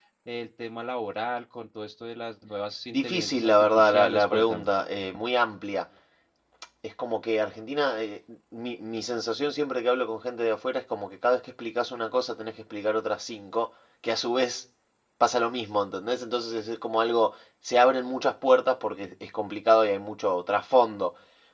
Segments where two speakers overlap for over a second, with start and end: 2.9-4.7

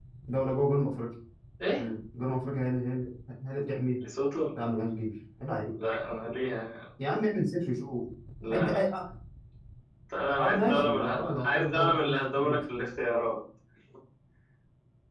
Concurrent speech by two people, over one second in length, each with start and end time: 10.4-12.6

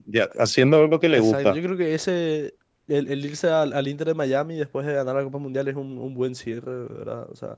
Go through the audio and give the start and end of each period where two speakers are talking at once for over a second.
none

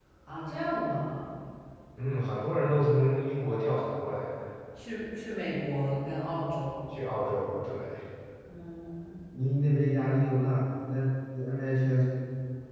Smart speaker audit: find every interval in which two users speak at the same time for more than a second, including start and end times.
none

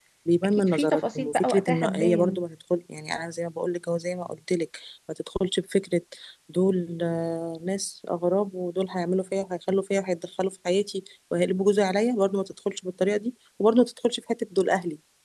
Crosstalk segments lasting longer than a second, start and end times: 0.6-2.4

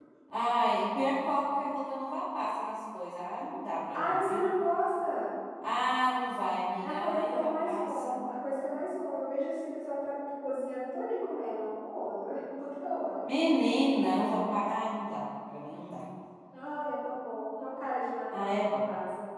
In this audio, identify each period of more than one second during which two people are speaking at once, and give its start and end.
6.8-8.2

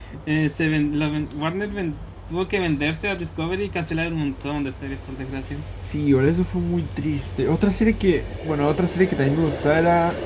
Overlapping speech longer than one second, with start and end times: none

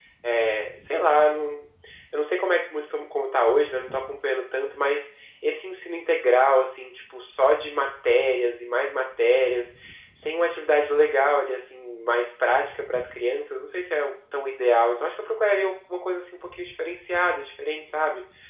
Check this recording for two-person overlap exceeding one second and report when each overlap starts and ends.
none

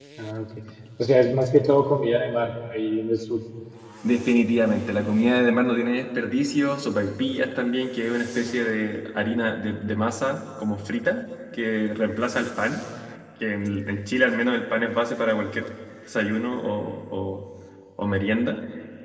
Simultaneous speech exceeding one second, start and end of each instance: none

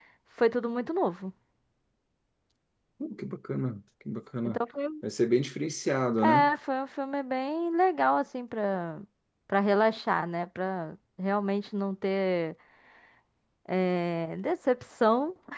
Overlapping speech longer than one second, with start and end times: none

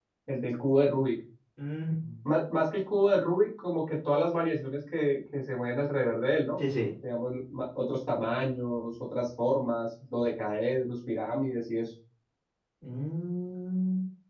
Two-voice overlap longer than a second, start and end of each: none

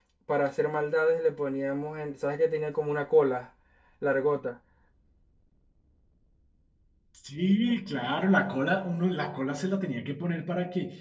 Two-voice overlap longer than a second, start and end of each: none

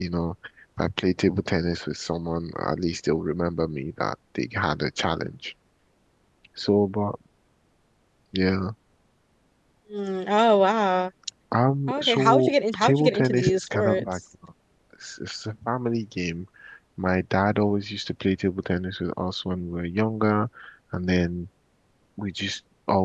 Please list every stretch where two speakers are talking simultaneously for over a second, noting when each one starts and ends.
11.9-14.1

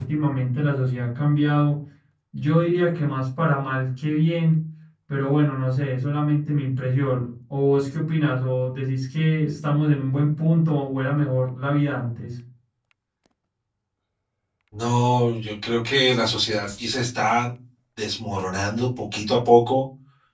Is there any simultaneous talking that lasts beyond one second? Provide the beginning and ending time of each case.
none

